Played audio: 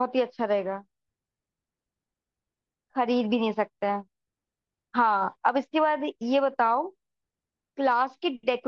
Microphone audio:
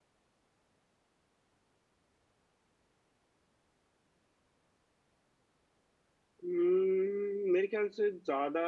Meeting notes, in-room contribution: present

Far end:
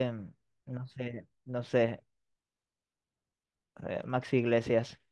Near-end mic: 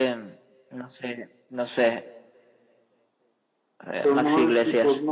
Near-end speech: present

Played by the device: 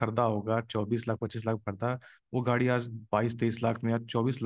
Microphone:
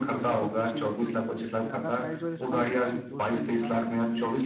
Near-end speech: present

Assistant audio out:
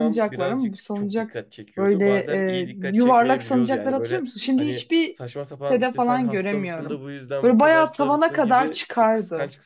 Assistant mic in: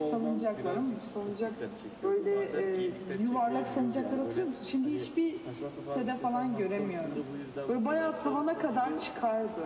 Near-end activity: none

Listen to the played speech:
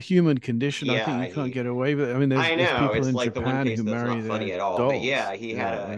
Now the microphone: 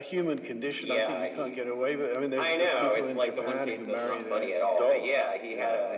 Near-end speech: none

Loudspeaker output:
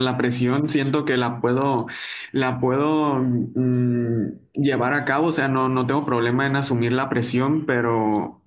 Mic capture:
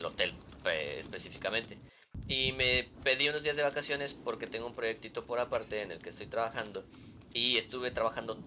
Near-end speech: present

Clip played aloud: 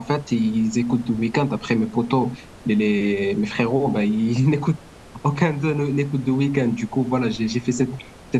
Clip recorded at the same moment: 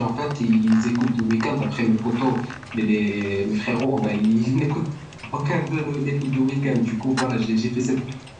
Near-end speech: none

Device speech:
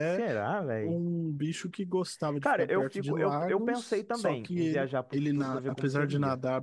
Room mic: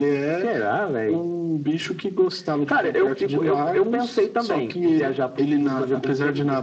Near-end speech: none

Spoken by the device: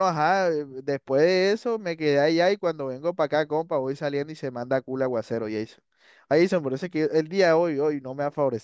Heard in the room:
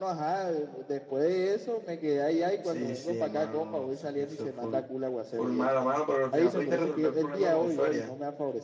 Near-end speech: present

